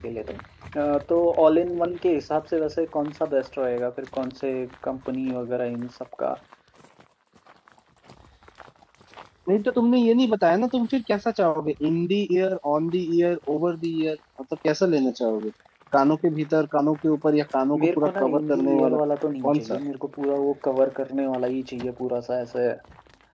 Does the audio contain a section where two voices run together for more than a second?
Yes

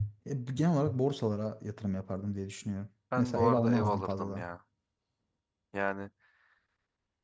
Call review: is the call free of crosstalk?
No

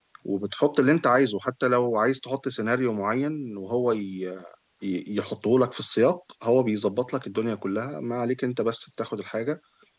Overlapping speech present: No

